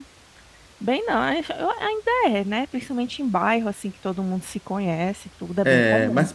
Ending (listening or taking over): taking over